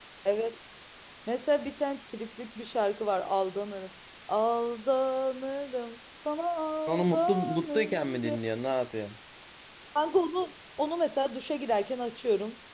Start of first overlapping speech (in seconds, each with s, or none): 6.9 s